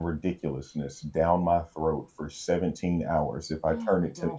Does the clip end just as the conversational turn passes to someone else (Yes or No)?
Yes